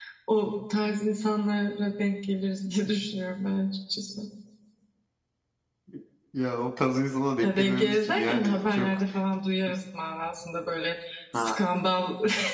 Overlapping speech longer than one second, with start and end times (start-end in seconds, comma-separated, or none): 7.4-8.9